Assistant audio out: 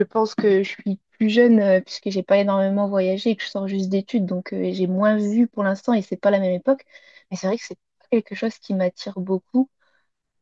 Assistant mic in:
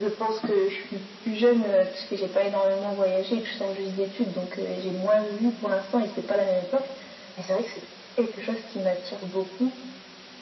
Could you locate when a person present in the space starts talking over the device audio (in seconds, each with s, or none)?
none